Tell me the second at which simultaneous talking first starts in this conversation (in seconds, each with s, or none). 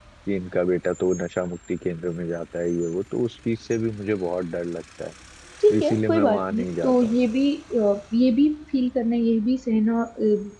5.8 s